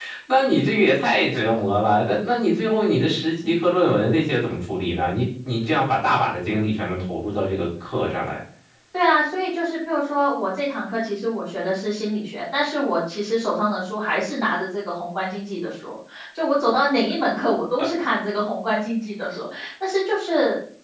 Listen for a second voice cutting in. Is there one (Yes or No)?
No